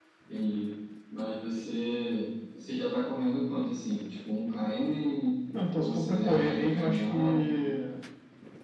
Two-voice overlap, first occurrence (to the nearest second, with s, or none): 6 s